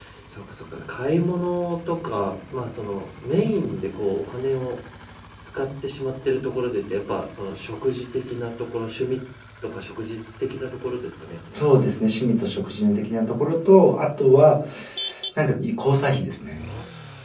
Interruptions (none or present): none